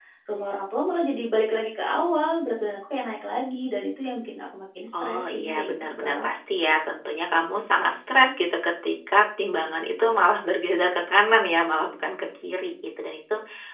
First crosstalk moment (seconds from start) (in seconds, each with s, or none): 4.9 s